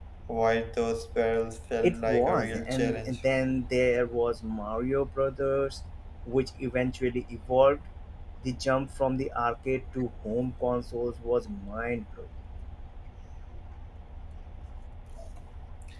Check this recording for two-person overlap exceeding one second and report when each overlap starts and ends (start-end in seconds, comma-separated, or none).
1.8-3.2